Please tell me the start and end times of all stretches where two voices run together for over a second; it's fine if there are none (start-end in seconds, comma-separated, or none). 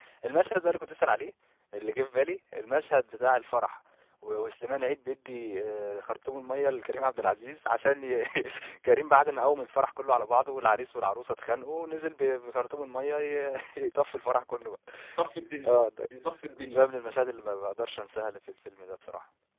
none